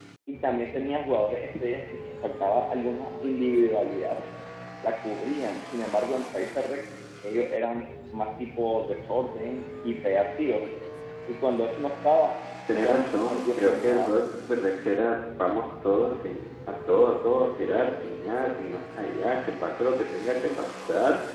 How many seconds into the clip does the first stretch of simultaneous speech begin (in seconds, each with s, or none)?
12.7 s